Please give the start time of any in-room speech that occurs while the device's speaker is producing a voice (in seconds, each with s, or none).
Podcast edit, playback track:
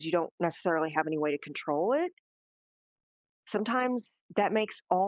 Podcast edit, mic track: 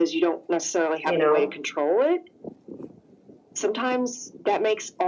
1.0 s